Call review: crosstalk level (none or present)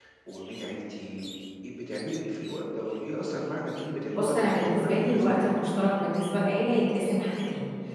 present